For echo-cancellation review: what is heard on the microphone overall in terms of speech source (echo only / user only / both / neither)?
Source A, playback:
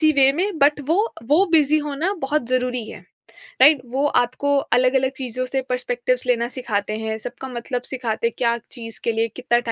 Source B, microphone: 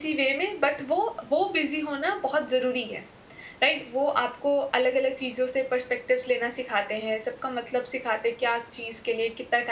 echo only